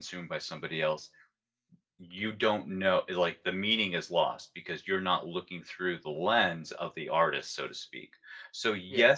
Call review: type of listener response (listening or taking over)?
listening